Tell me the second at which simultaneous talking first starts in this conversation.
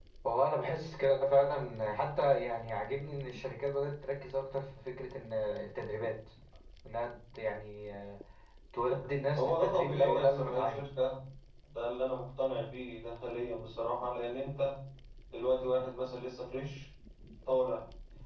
9.4 s

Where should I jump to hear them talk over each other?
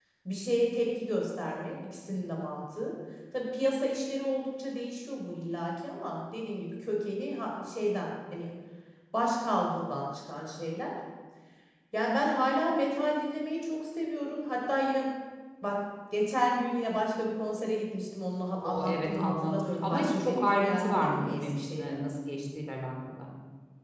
18.6 s

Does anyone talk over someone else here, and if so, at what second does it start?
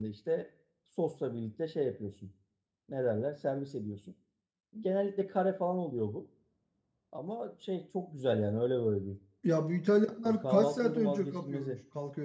10.2 s

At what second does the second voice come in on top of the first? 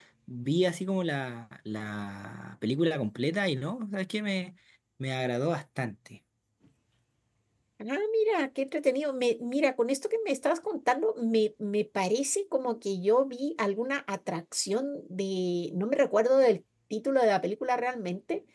none

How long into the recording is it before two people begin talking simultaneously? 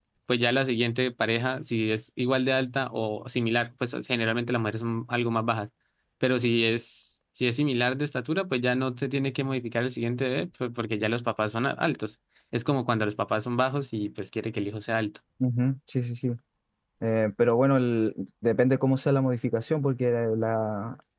none

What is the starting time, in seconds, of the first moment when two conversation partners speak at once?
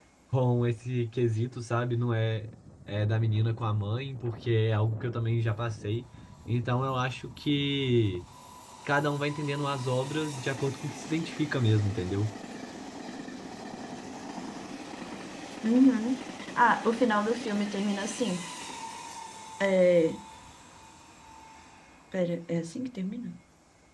none

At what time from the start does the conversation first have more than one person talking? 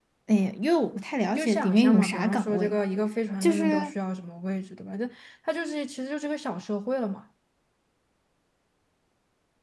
1.3 s

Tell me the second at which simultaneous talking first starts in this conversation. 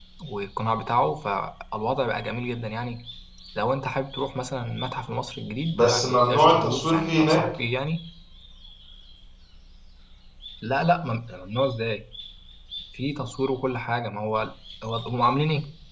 5.8 s

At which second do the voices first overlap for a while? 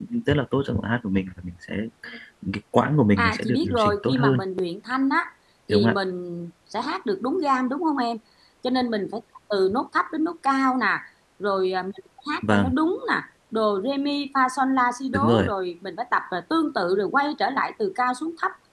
3.2 s

